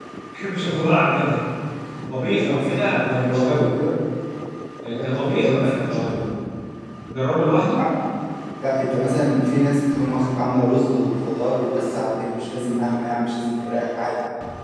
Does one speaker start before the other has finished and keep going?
Yes, from 2.2 s

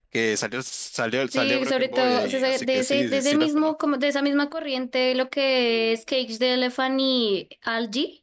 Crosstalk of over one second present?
Yes, from 1.3 s

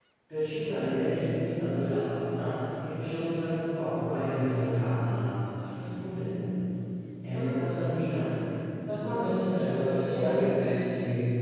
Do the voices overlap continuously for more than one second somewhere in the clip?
Yes, from 9.1 s

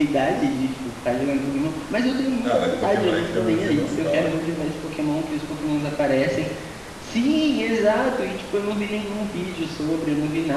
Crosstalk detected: Yes, from 2.5 s

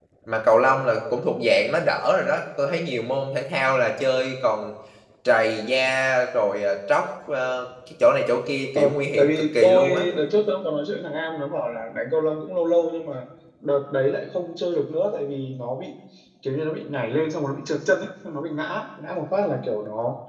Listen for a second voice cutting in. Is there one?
Yes, from 8.8 s

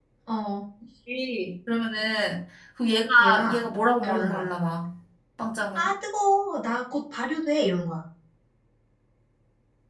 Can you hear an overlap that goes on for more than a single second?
No

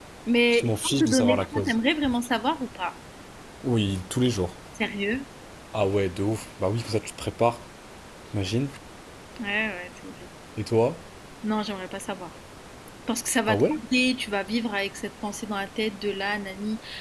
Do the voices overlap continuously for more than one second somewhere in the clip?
Yes, from 0.5 s

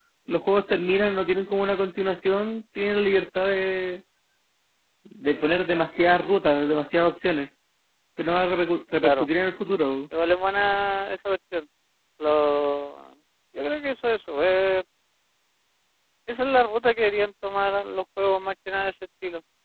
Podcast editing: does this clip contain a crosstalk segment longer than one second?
No

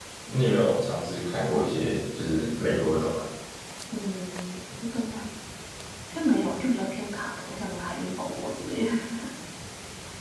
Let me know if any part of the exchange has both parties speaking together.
No

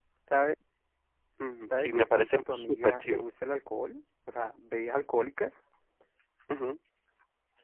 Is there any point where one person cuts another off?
Yes, from 1.8 s

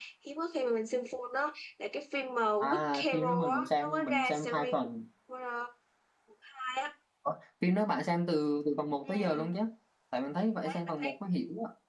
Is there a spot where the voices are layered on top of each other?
Yes, from 2.6 s

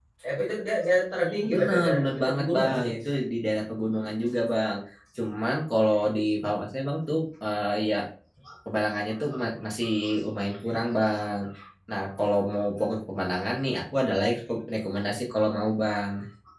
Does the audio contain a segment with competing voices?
Yes, from 1.4 s

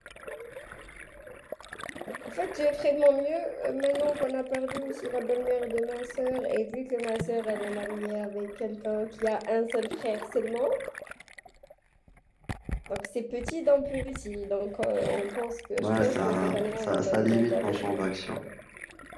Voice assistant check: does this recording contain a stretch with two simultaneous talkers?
Yes, from 15.8 s

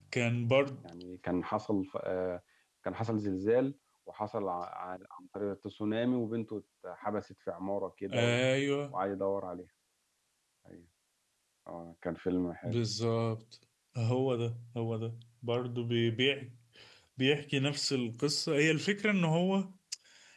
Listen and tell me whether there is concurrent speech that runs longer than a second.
No

